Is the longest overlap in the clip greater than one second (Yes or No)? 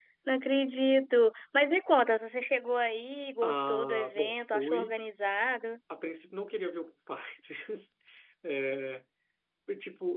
Yes